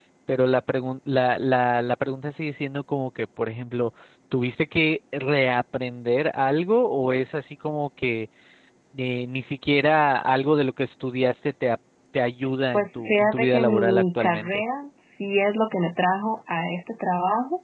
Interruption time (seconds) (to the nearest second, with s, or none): 13 s